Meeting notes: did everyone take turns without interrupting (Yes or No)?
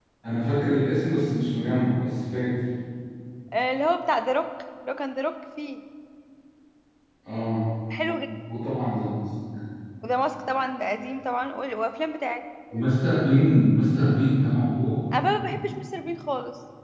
Yes